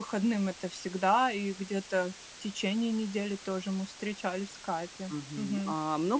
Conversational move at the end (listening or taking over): taking over